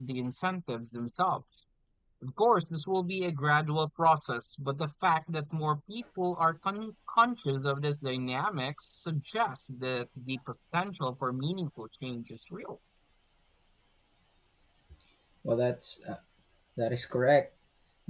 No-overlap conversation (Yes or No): Yes